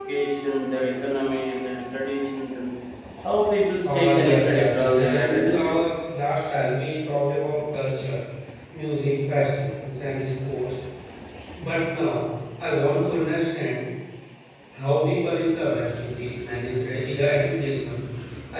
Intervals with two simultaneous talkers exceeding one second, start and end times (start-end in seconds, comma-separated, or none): 3.8-5.7